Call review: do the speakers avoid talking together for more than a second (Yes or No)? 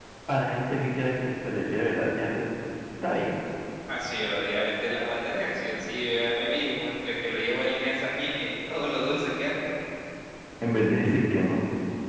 Yes